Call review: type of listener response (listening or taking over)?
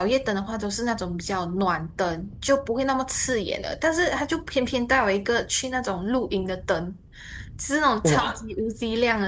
listening